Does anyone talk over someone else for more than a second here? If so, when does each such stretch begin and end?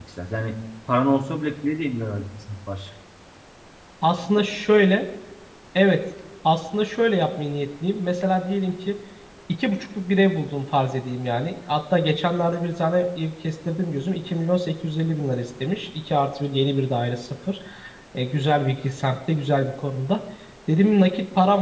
none

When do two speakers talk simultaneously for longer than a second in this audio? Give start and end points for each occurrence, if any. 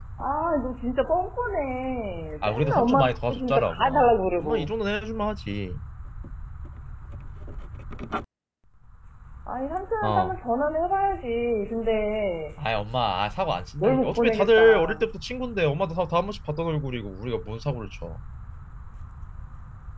2.4-4.7, 13.8-15.0

